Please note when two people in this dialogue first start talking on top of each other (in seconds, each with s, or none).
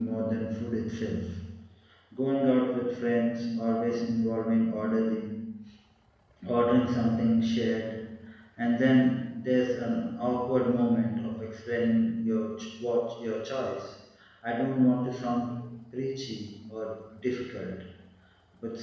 none